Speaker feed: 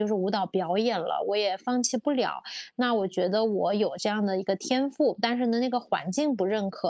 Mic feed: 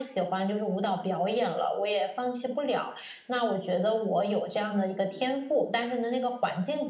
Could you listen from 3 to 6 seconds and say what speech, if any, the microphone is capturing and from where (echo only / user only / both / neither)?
echo only